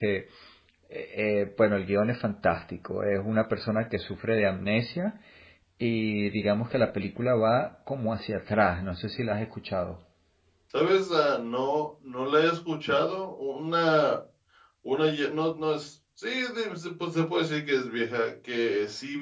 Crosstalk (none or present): none